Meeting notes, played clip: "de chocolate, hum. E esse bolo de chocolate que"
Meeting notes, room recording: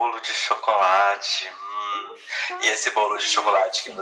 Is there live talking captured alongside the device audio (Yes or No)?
Yes